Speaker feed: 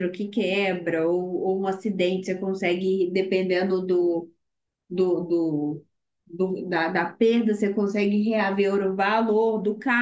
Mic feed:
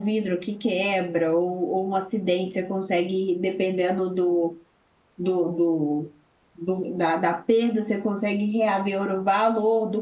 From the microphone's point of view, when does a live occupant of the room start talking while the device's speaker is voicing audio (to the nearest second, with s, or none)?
none